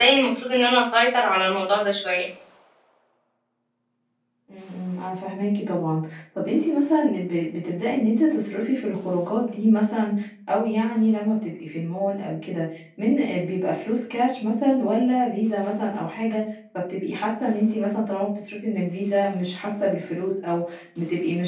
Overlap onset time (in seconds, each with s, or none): none